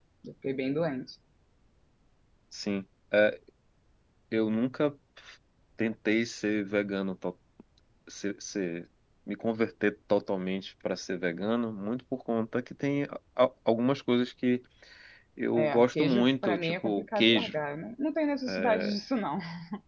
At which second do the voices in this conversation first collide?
16 s

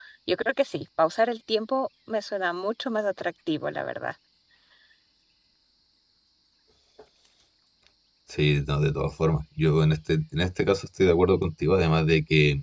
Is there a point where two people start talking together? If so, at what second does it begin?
none

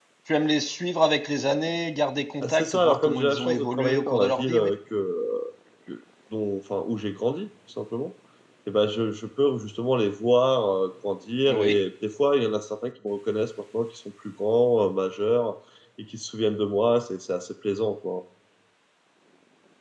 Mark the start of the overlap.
2 s

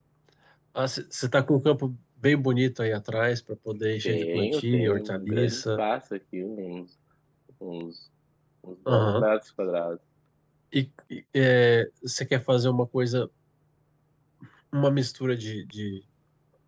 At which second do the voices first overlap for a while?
4 s

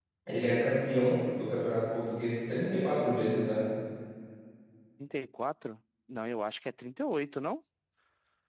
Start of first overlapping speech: none

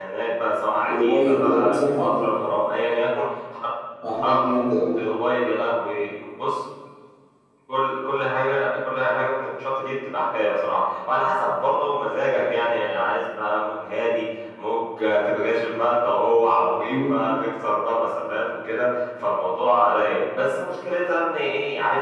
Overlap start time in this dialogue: 1 s

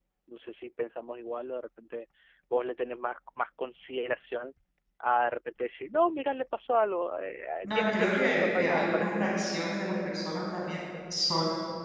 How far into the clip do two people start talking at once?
8 s

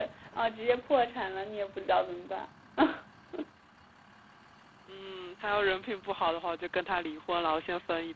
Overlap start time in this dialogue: none

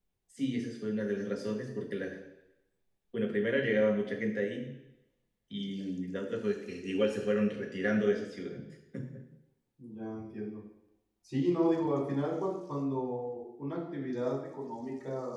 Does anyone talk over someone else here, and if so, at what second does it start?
none

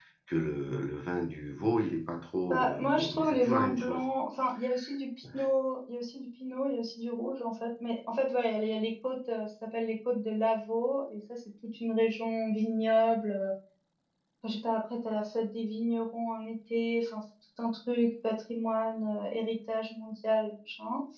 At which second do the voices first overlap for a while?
3 s

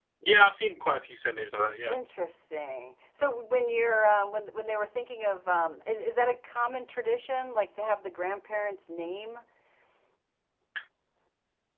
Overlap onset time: none

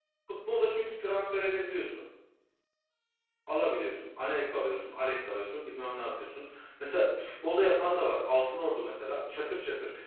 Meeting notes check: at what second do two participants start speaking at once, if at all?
none

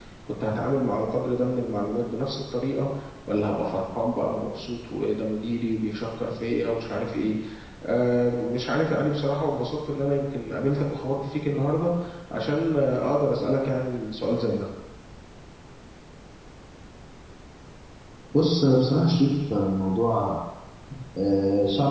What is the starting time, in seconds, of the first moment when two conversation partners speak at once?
none

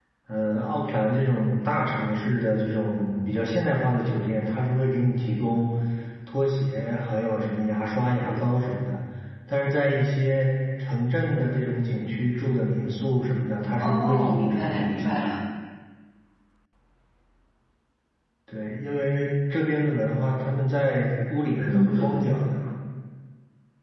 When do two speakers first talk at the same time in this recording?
14 s

